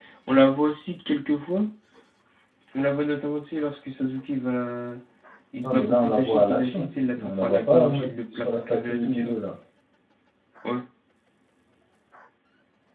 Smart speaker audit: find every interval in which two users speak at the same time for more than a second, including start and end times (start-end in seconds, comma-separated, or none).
5.6-9.4